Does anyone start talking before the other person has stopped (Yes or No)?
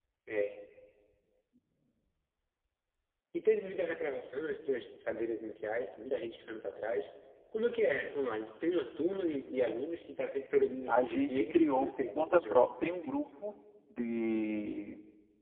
Yes